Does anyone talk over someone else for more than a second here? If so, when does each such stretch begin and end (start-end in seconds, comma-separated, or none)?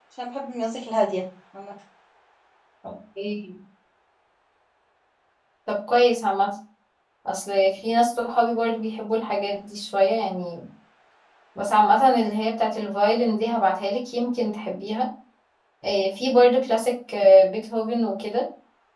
none